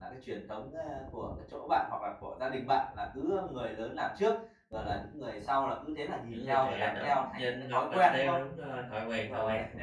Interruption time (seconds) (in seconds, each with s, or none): 6.3 s